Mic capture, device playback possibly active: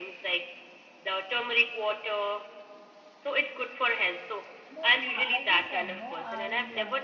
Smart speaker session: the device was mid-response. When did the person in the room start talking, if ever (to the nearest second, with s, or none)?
5 s